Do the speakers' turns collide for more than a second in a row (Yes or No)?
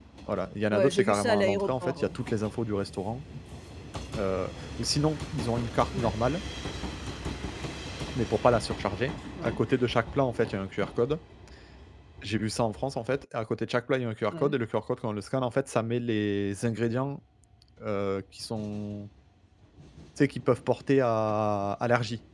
Yes